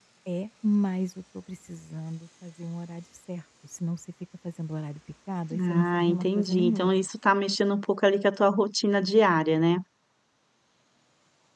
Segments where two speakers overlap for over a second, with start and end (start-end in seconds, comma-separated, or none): 5.6-6.9